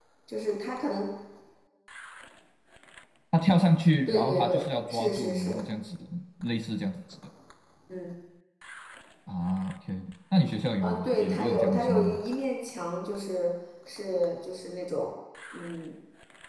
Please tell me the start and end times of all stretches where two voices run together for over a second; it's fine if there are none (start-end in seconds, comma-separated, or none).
4.1-5.6, 10.8-12.2